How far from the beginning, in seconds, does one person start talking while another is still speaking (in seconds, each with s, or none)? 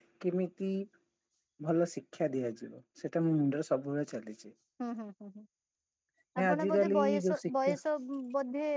6.4 s